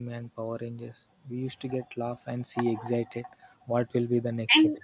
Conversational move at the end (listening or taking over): taking over